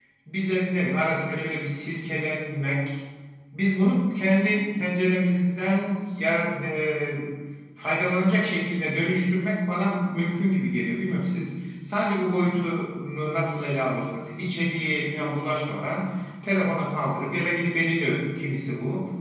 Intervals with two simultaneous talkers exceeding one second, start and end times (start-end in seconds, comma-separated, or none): none